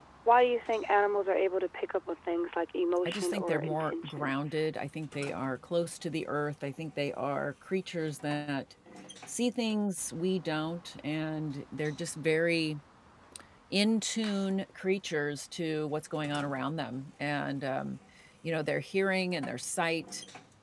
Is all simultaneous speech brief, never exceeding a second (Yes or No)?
No